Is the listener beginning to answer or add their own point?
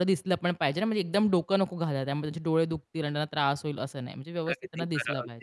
Yes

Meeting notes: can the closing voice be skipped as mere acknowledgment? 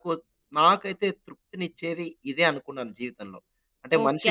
No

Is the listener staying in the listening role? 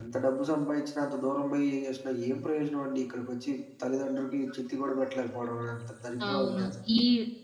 No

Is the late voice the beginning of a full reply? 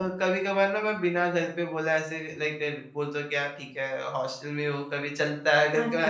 Yes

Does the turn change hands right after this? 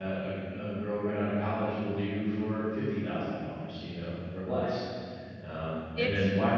No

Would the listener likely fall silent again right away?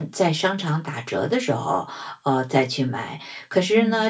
Yes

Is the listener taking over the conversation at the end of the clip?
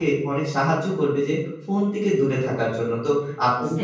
Yes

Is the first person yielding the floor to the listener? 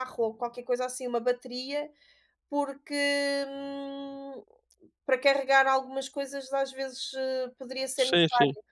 Yes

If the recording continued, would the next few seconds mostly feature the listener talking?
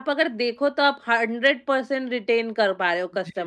Yes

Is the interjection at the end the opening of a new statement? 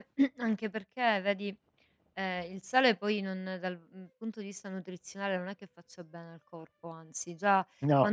No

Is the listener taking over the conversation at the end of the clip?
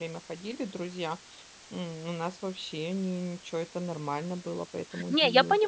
Yes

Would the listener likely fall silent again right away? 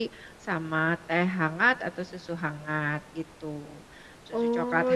No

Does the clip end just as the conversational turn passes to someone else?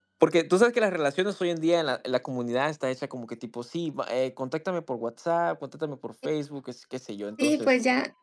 Yes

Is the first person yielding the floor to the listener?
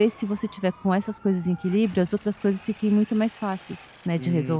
Yes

